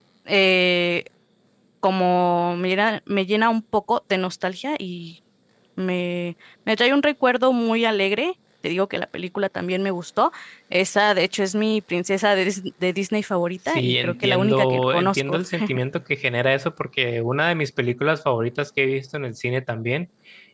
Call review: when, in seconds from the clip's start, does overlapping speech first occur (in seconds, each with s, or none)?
13.7 s